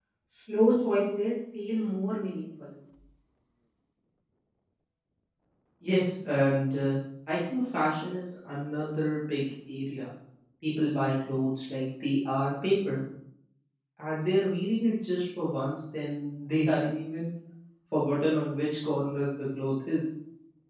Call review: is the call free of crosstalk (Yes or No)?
Yes